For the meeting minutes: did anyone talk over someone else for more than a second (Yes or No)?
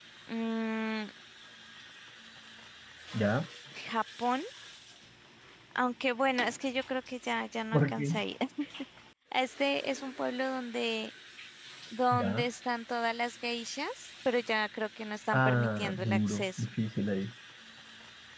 Yes